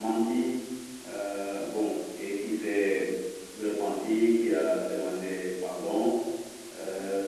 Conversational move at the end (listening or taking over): listening